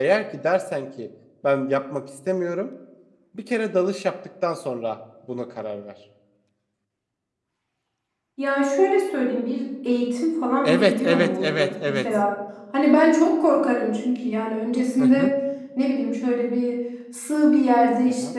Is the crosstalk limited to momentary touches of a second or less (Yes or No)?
No